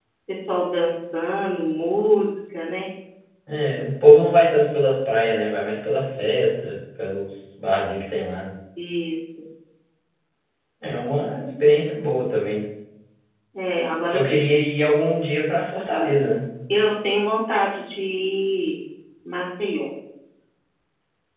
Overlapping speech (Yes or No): No